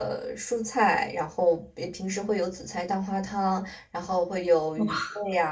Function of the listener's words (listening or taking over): listening